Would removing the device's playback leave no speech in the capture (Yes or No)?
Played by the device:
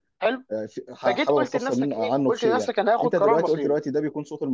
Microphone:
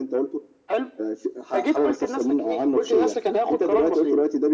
Yes